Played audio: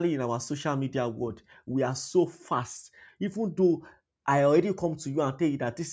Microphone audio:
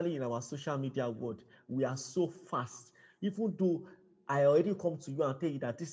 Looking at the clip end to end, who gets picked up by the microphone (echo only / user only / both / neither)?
echo only